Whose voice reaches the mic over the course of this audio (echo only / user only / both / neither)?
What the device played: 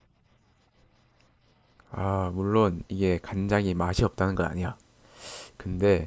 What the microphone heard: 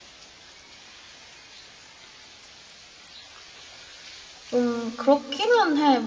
user only